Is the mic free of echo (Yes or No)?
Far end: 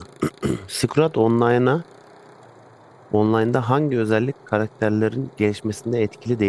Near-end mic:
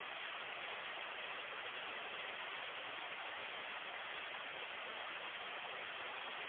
Yes